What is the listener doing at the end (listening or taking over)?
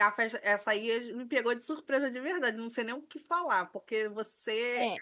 listening